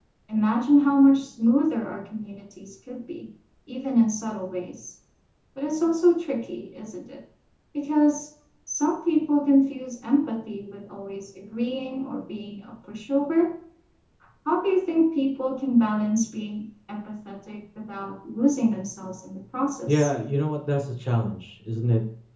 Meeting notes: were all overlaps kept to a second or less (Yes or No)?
Yes